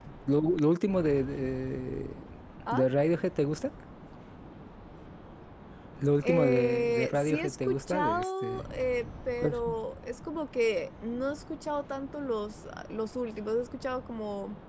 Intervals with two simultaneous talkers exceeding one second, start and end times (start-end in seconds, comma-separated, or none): 6.2-8.7